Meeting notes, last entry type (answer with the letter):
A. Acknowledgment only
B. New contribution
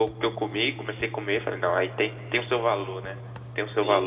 B